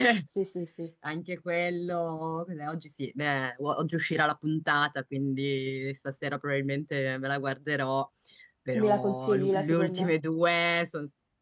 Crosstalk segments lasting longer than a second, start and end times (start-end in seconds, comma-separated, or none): 8.8-10.1